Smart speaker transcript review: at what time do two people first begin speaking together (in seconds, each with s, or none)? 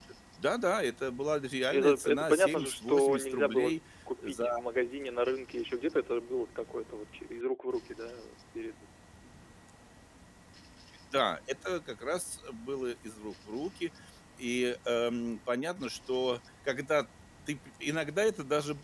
1.7 s